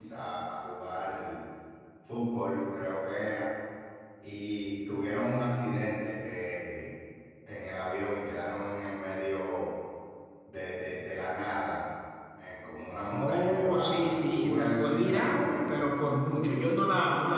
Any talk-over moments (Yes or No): Yes